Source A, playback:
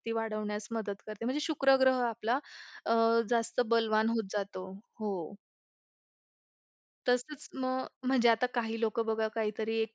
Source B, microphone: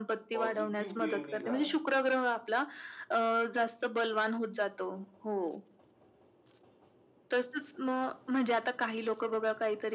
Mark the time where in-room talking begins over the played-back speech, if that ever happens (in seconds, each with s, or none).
0.3 s